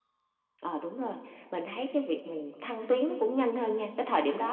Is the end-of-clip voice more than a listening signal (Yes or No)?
No